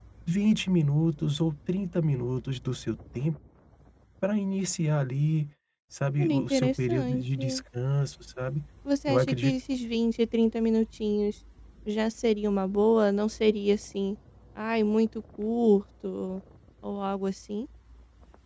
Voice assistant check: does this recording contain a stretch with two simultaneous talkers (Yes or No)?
Yes